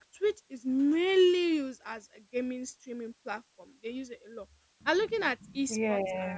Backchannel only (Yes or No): Yes